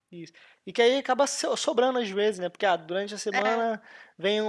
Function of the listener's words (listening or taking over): listening